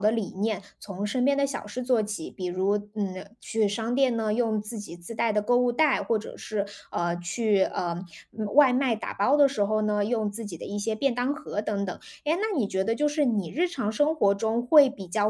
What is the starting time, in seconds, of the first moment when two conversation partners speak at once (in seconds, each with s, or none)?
none